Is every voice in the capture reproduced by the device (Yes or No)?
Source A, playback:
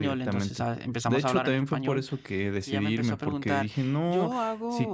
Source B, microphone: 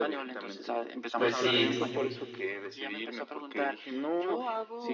No